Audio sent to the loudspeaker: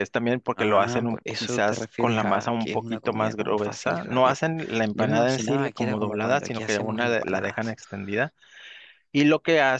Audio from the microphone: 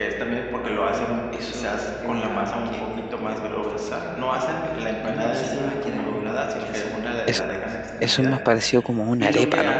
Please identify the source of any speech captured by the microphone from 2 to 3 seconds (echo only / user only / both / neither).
echo only